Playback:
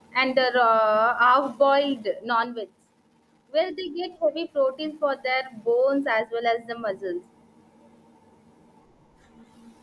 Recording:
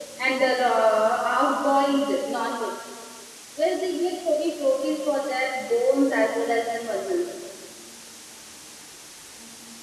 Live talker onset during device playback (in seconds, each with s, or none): none